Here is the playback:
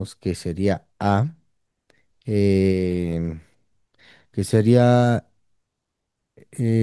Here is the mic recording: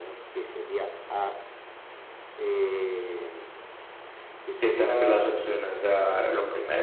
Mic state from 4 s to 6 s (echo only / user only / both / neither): both